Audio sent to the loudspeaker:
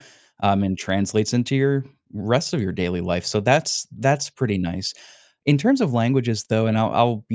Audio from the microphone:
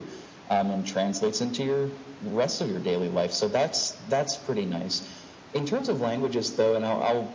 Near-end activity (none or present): none